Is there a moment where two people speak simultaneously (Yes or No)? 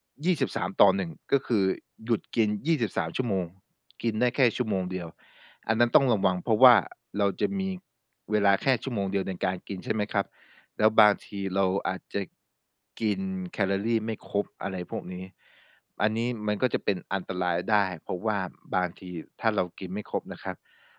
No